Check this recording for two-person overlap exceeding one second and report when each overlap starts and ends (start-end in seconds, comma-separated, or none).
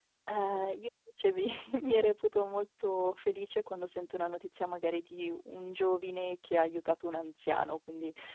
none